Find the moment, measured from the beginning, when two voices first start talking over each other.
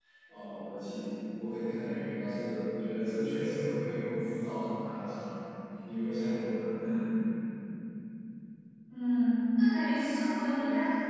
none

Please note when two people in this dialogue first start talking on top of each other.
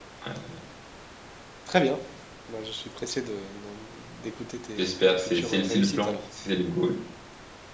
4.8 s

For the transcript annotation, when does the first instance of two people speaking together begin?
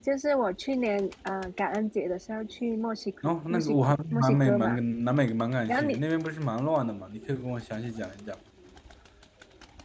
3.2 s

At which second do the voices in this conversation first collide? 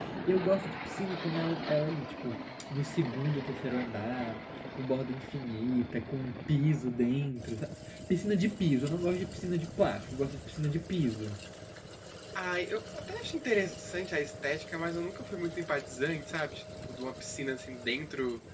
none

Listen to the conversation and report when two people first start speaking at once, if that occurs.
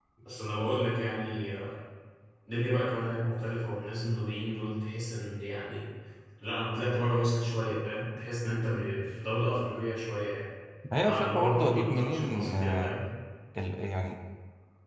11.0 s

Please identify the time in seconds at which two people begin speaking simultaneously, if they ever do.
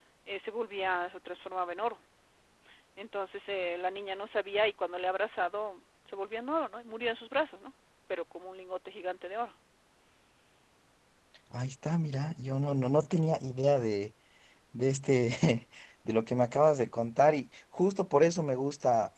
none

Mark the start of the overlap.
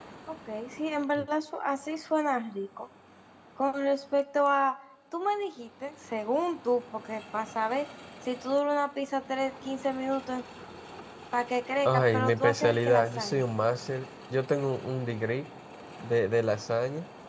11.8 s

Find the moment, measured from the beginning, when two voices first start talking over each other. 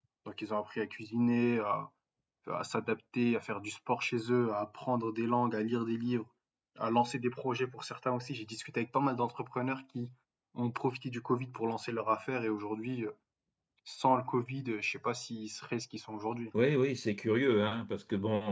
none

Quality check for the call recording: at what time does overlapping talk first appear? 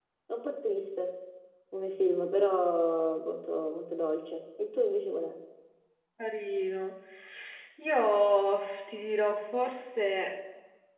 none

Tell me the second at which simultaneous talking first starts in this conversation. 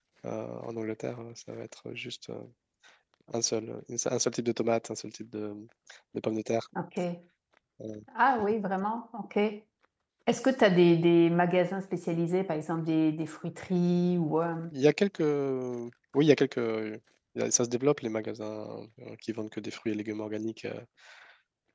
none

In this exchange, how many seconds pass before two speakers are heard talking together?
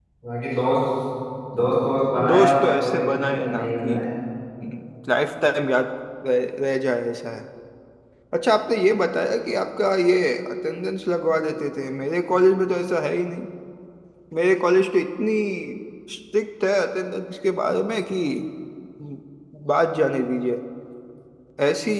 2.3 s

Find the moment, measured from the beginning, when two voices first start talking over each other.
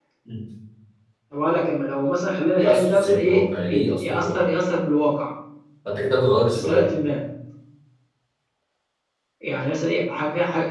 2.6 s

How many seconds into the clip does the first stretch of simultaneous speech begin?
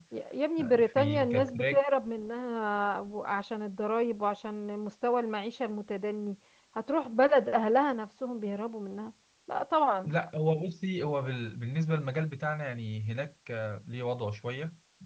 0.6 s

